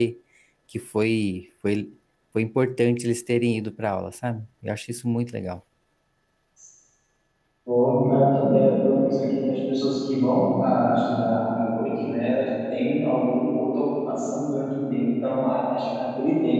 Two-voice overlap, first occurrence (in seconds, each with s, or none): none